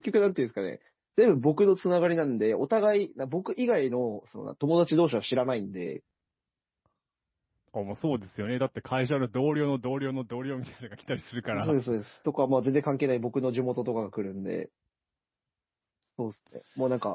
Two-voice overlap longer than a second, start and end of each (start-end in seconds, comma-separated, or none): none